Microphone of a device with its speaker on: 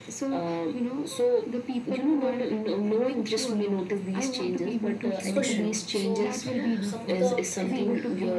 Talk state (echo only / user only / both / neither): both